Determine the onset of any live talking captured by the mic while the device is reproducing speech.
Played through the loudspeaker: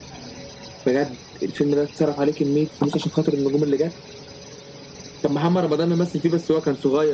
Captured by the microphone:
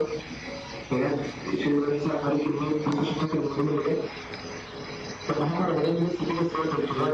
none

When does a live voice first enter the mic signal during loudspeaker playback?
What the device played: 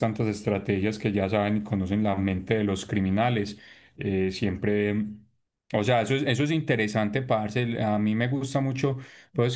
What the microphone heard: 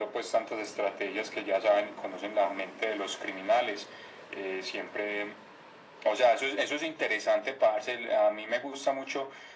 none

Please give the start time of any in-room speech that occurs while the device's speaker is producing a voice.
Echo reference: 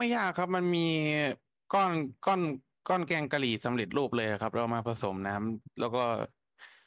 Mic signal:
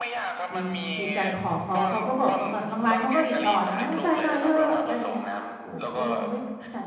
0.5 s

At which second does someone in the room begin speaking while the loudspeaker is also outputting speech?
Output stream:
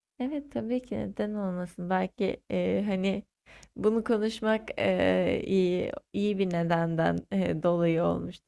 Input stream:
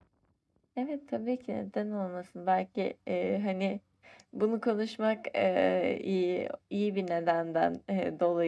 none

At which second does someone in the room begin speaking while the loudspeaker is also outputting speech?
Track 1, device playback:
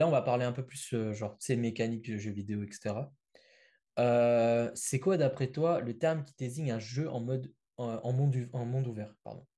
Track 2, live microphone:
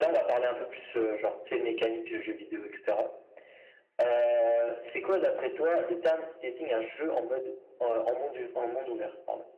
none

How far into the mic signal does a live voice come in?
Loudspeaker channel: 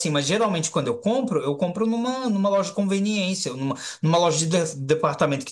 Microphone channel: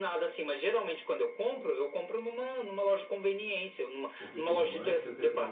4.2 s

